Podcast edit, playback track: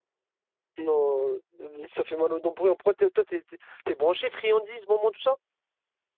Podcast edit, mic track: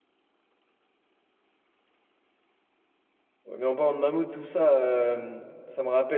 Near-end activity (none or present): present